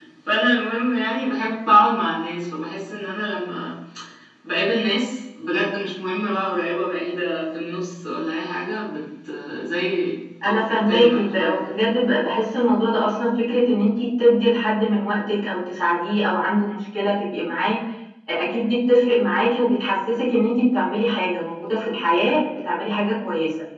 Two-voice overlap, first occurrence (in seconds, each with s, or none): 10.4 s